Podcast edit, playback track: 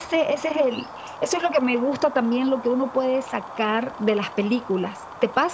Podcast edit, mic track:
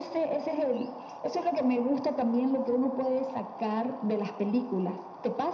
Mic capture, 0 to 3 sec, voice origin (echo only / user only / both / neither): echo only